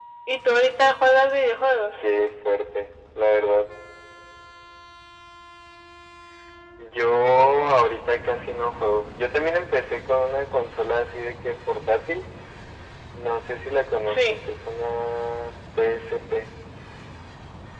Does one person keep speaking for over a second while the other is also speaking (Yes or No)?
No